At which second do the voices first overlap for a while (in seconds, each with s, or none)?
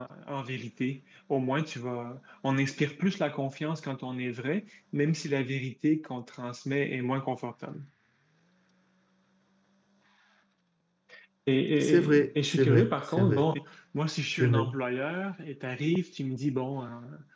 11.8 s